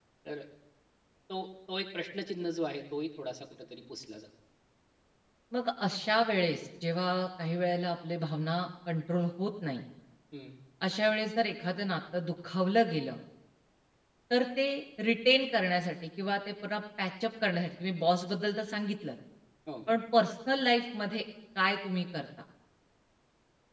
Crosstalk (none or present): none